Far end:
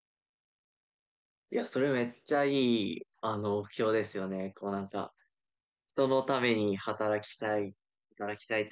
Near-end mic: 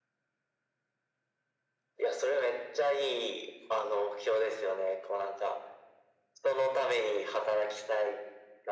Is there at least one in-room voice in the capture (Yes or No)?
No